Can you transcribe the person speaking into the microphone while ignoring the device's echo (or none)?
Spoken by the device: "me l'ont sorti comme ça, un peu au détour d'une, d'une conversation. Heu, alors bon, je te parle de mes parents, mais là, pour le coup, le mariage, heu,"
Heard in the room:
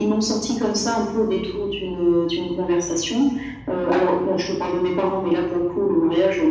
none